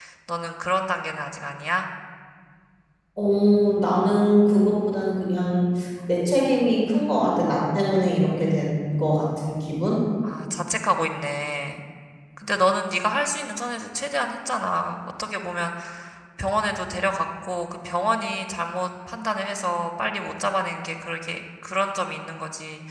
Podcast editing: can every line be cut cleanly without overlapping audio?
Yes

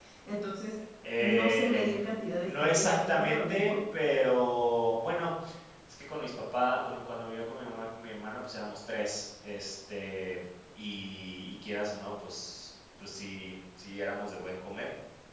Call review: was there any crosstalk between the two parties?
Yes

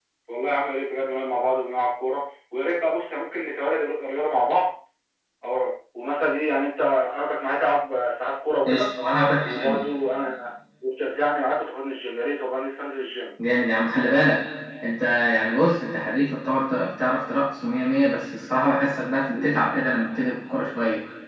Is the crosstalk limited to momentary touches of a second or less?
Yes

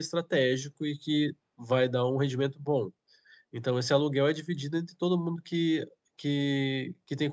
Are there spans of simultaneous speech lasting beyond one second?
No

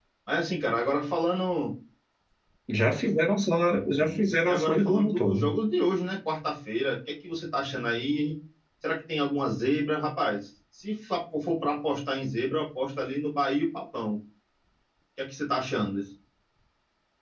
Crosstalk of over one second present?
Yes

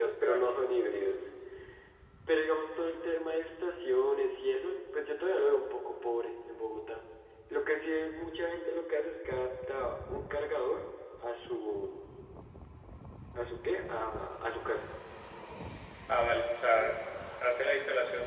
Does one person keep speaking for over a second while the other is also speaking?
No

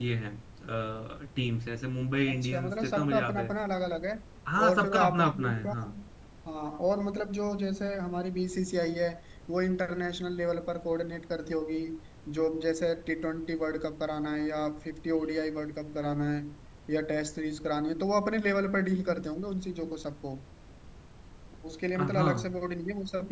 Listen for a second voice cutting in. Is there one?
Yes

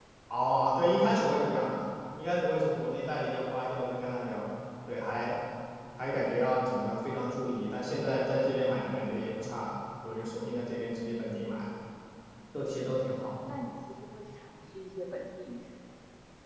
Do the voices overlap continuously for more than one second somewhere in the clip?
No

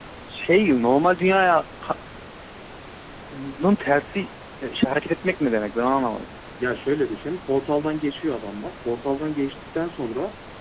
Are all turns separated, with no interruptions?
Yes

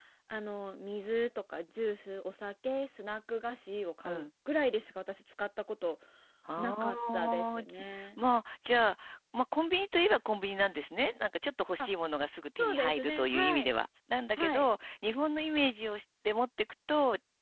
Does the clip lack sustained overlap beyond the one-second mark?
No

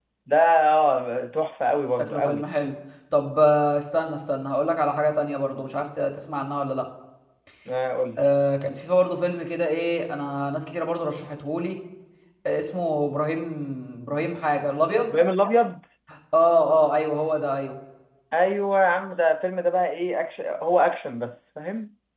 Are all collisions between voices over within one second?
Yes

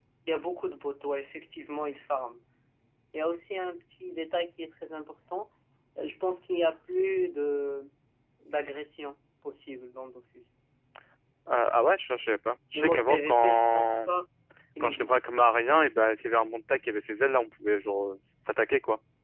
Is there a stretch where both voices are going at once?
Yes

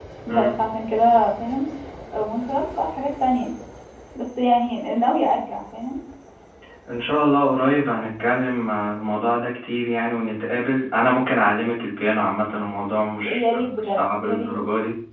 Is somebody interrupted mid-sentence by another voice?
Yes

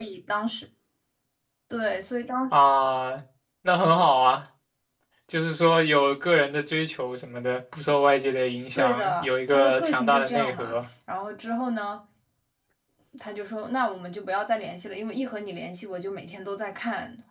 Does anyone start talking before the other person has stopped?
Yes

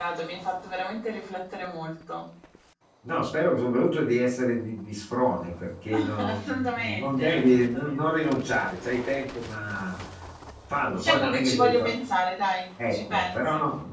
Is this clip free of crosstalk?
No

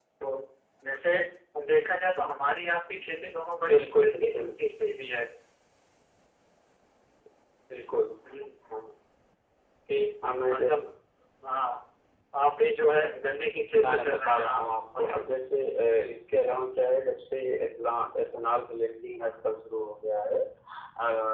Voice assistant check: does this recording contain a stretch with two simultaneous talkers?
Yes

